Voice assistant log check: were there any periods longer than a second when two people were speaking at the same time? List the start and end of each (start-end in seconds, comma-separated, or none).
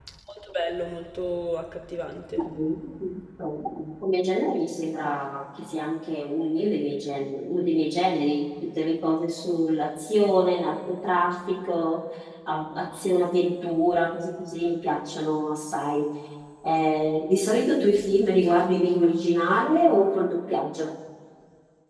none